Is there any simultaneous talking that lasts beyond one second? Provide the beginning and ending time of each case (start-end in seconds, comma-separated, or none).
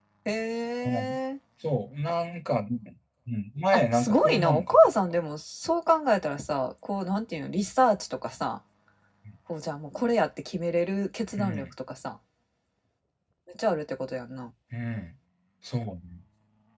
3.7-5.1